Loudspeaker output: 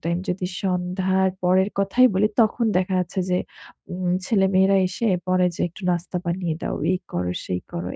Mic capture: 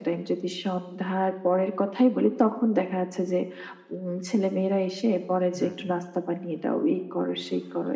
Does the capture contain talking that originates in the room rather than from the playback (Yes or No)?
Yes